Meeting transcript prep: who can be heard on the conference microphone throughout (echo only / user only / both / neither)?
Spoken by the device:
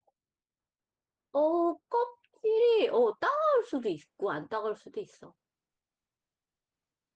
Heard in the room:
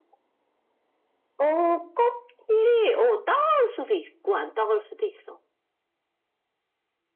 echo only